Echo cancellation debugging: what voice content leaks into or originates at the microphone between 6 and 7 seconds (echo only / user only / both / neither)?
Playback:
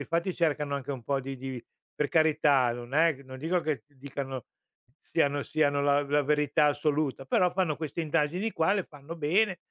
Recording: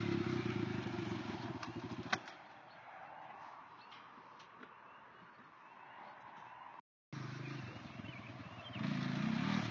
neither